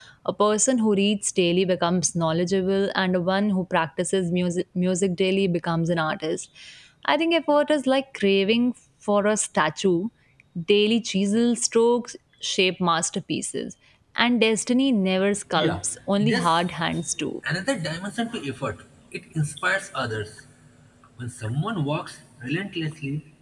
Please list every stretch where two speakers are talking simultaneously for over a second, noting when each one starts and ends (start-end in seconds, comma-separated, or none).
none